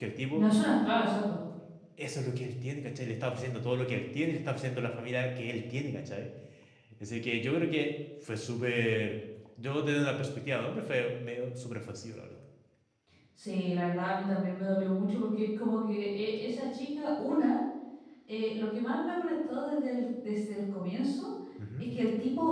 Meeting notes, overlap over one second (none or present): none